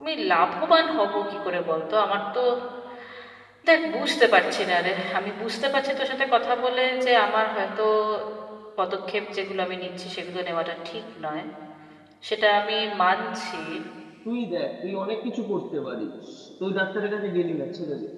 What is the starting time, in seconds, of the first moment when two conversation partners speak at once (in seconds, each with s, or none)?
none